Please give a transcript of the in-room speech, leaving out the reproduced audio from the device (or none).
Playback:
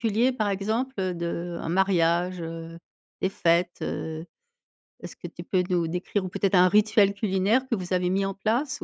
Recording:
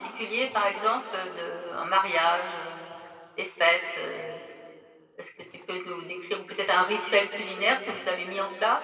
none